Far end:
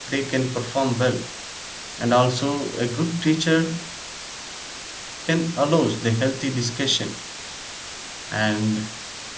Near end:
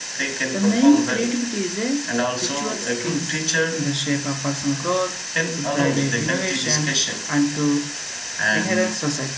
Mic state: both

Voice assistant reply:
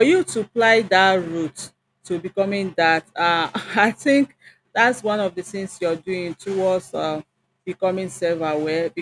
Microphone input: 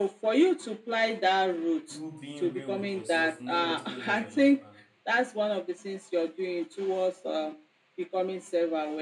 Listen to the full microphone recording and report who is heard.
both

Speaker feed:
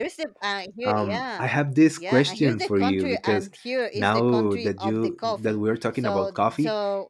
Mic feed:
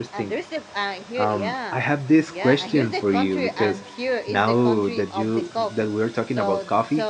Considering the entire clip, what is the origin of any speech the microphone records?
echo only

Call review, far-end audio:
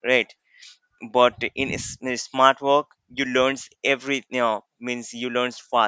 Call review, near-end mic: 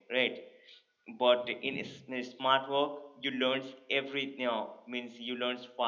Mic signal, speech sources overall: echo only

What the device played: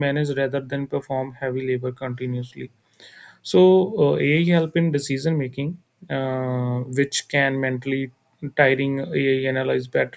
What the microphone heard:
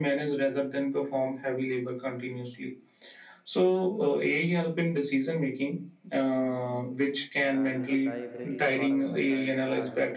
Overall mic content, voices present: both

